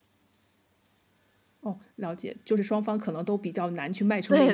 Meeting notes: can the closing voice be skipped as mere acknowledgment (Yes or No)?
No